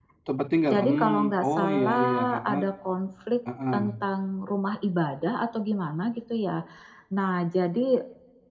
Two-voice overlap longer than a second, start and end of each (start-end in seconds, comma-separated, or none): 0.7-2.6